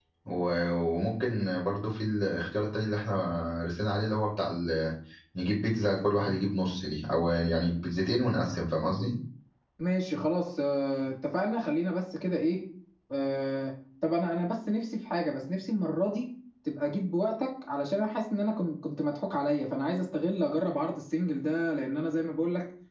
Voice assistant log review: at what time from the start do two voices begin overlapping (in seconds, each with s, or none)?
none